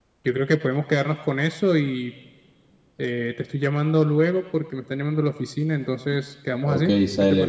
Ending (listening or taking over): taking over